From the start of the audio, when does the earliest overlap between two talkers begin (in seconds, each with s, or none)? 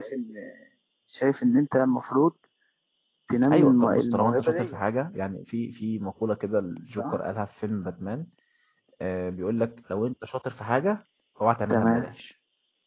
3.5 s